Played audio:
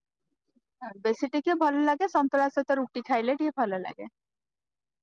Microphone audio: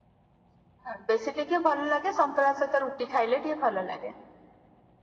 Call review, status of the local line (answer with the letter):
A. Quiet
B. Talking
A